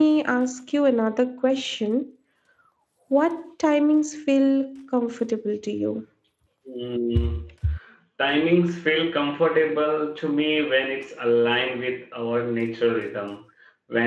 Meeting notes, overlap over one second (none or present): none